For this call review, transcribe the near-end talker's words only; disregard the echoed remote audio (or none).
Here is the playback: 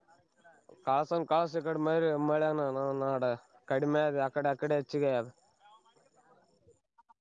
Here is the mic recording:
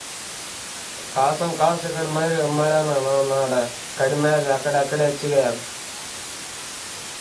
none